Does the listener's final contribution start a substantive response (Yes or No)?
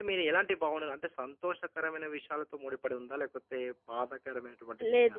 Yes